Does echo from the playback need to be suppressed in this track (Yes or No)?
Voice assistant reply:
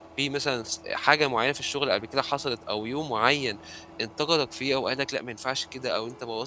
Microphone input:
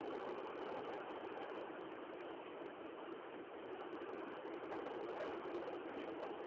No